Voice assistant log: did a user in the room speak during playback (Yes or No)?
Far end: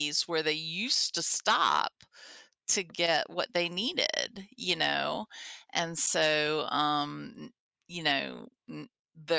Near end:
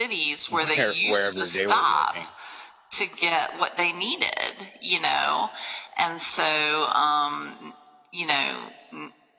Yes